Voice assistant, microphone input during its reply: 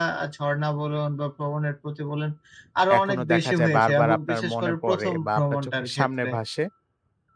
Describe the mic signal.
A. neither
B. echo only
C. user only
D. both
D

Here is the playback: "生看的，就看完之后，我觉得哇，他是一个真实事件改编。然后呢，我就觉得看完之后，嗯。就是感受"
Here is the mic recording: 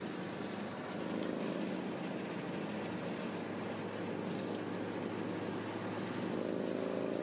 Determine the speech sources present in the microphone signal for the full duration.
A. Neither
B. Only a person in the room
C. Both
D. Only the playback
A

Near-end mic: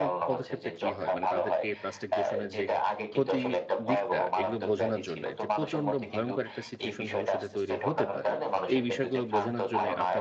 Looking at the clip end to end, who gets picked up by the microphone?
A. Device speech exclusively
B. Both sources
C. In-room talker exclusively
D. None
B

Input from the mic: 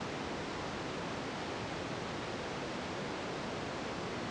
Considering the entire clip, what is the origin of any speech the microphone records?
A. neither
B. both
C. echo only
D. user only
A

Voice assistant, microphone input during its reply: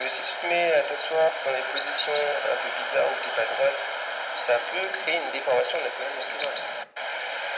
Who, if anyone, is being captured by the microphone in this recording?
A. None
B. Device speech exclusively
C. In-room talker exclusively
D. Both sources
B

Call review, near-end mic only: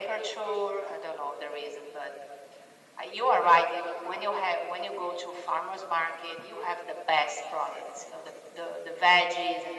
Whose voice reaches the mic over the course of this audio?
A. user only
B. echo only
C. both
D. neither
B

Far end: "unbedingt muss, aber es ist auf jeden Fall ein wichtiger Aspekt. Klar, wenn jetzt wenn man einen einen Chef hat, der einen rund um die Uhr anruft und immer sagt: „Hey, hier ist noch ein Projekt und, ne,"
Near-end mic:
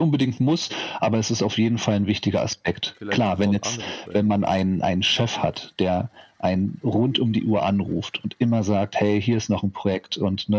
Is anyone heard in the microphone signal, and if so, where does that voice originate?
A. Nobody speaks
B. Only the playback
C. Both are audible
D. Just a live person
C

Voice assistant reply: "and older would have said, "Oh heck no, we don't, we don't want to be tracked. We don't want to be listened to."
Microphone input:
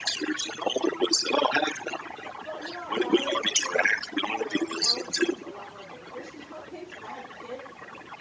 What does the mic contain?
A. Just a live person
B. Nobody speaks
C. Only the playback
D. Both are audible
D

